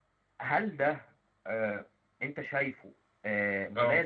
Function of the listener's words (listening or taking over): listening